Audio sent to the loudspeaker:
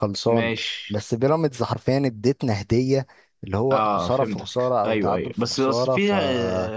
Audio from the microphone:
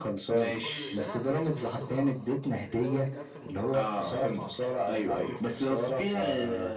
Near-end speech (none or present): present